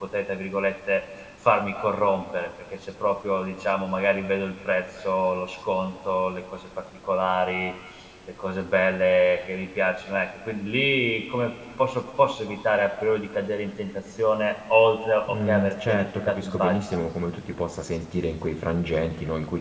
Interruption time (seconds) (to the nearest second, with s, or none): 15 s